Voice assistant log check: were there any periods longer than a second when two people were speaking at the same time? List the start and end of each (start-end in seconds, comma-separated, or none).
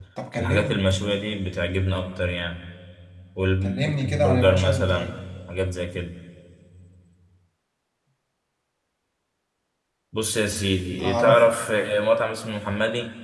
3.6-5.2